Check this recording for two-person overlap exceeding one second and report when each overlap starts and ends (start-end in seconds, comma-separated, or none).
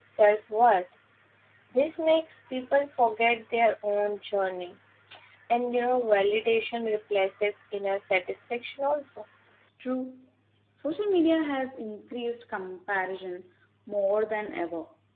none